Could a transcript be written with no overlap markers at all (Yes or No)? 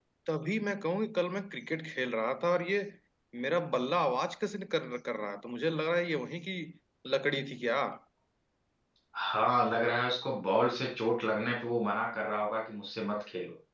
Yes